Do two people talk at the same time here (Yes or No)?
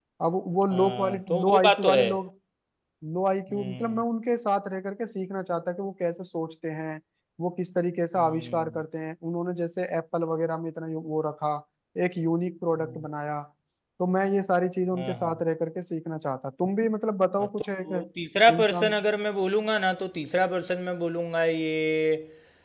Yes